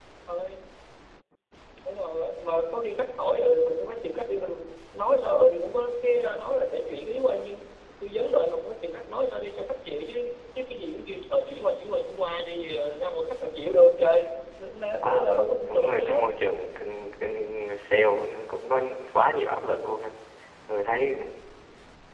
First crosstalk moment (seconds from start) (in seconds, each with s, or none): 15.0 s